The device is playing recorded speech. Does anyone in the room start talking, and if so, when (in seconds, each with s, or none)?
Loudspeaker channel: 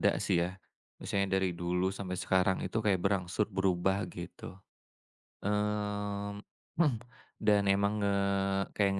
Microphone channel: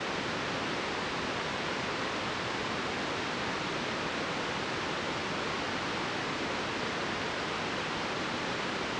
none